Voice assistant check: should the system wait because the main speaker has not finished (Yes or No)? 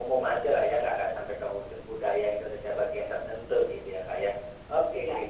Yes